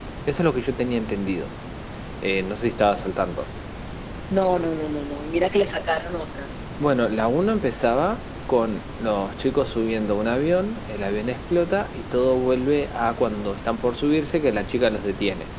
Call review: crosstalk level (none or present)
none